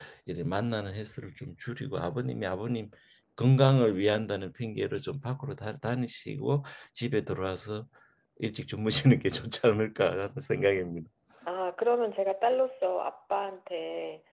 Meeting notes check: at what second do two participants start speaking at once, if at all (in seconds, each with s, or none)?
none